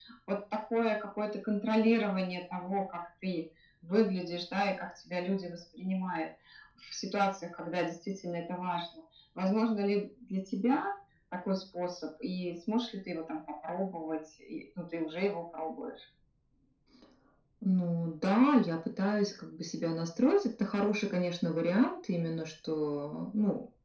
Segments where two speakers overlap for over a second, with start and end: none

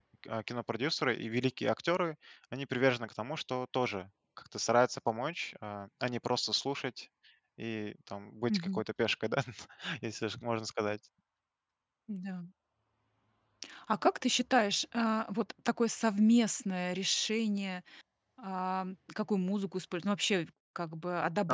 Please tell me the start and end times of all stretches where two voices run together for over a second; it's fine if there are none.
none

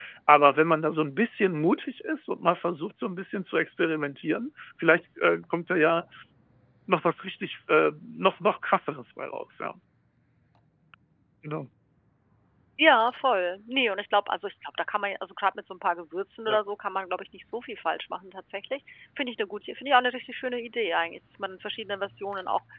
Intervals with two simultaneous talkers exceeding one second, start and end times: none

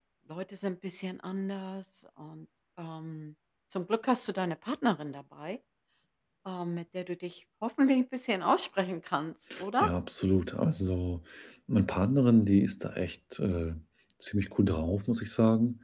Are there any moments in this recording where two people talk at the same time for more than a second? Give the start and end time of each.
none

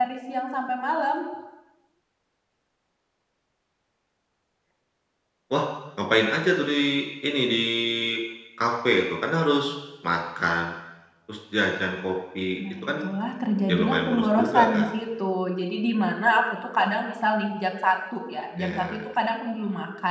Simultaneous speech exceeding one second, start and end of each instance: 13.7-14.9

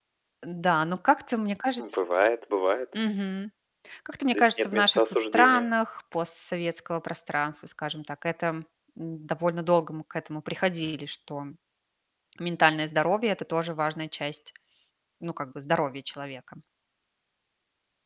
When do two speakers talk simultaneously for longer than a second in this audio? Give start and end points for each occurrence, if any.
4.3-5.7

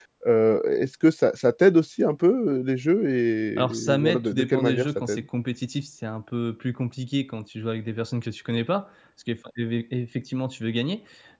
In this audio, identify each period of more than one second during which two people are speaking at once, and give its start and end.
3.6-5.2

